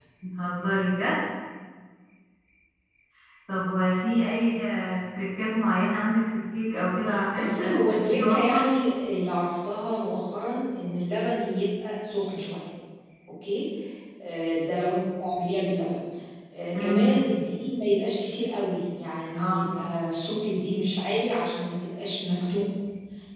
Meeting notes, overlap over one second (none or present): present